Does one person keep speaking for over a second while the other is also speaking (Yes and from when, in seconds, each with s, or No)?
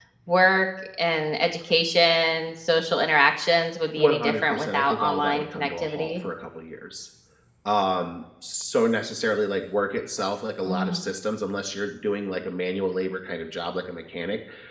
Yes, from 4.0 s